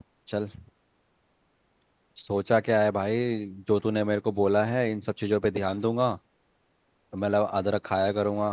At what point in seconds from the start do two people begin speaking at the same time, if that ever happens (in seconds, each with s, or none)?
none